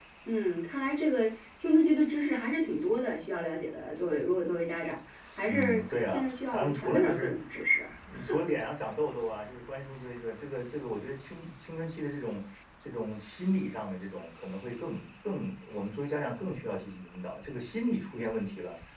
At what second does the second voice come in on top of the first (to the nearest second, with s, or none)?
5 s